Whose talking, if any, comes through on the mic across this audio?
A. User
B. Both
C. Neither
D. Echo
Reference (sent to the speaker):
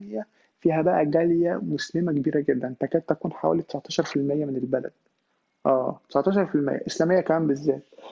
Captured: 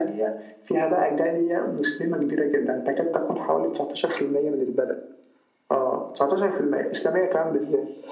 D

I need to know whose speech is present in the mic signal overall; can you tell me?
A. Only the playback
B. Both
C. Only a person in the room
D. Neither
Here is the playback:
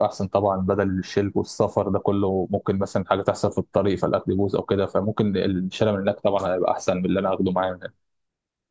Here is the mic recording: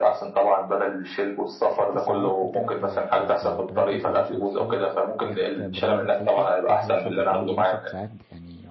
B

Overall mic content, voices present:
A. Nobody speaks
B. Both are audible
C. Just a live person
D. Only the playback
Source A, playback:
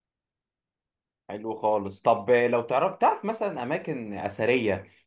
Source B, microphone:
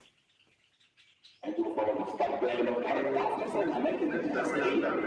B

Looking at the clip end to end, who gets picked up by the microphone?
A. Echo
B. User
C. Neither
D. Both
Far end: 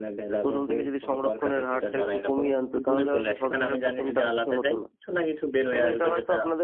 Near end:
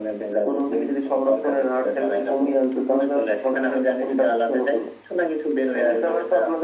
A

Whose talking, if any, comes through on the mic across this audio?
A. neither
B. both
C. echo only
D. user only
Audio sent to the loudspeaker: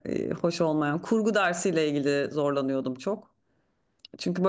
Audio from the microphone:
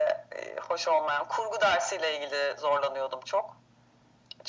C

